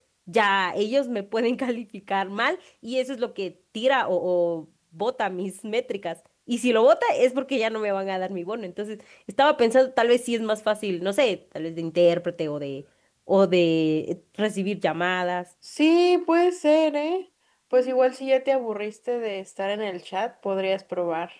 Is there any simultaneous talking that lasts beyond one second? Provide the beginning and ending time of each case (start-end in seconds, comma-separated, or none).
none